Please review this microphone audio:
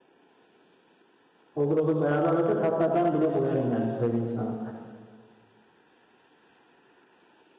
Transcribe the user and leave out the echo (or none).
Olur olur. Beraber bakarız. Hatta ben bile boyarım yani söyleyeyim sana.